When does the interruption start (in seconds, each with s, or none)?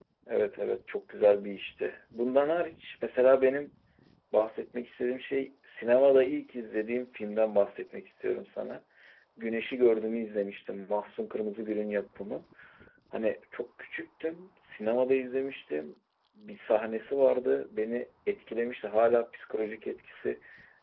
none